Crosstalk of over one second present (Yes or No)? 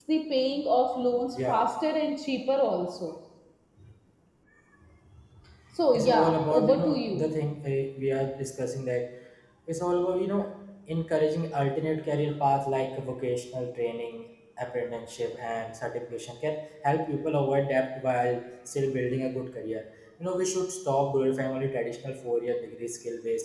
Yes